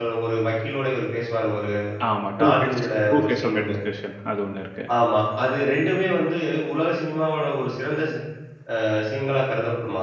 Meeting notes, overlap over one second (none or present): present